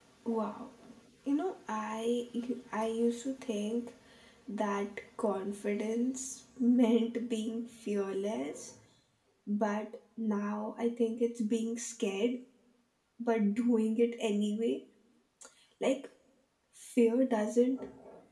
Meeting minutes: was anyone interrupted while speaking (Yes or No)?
No